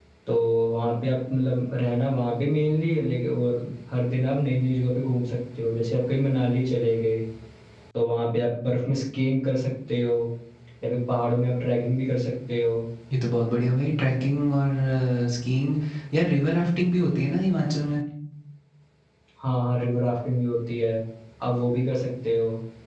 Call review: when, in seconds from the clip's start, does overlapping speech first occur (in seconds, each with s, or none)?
none